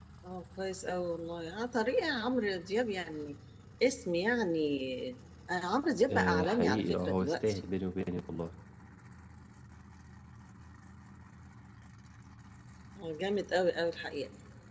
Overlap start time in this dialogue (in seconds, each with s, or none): 6.1 s